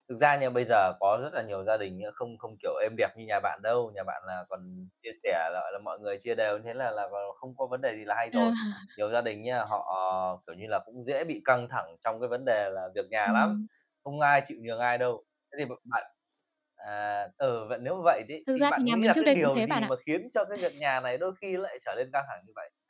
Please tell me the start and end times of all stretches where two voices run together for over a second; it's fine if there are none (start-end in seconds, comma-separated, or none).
18.6-19.9